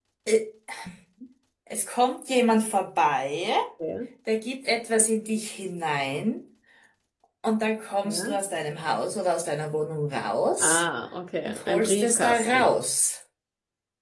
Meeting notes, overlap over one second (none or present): present